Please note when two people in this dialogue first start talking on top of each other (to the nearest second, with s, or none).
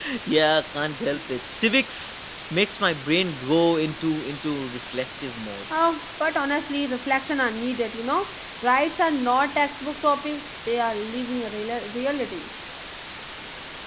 none